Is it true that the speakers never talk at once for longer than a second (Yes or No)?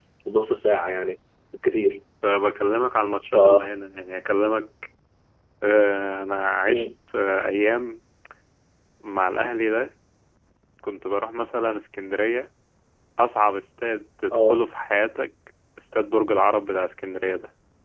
Yes